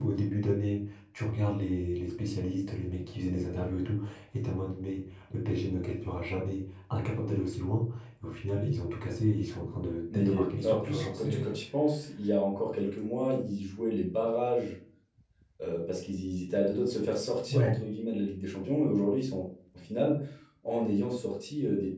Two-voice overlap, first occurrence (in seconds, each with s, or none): 10.1 s